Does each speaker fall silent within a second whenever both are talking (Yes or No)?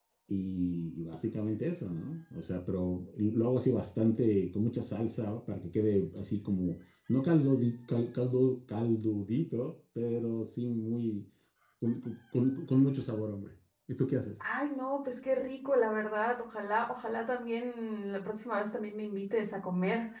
Yes